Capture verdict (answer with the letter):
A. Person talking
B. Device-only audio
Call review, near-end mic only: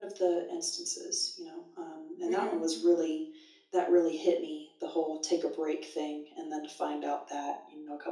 A